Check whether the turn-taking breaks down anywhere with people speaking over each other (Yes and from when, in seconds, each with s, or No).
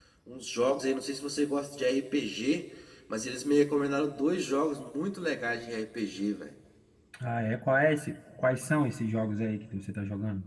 No